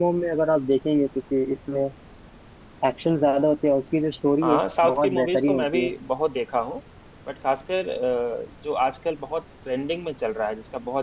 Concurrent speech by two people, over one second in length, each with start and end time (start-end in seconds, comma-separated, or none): 4.4-5.9